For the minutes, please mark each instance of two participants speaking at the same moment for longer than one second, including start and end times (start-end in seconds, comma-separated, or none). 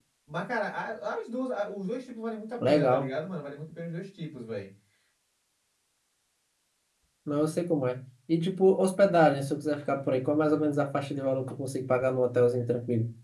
none